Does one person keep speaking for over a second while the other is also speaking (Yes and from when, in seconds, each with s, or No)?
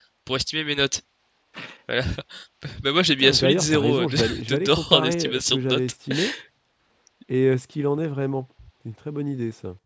Yes, from 3.2 s